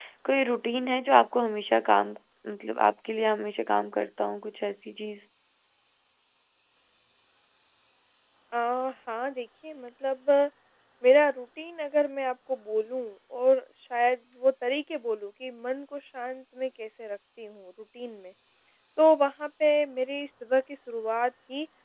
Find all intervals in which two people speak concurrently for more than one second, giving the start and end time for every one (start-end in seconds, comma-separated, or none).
none